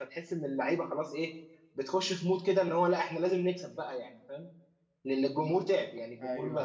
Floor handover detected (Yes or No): No